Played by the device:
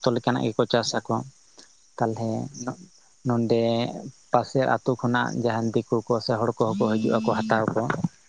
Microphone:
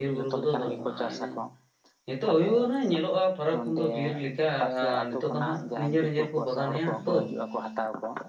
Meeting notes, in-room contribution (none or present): present